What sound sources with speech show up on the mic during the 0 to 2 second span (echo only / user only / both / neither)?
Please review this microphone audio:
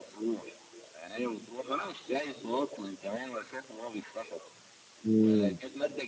echo only